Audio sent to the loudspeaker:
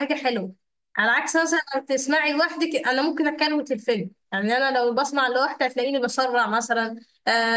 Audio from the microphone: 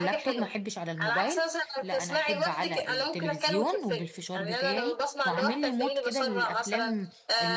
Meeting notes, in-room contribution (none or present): present